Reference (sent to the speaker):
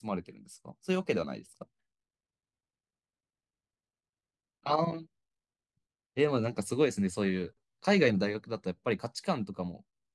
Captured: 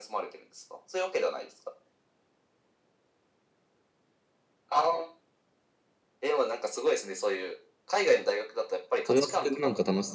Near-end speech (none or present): present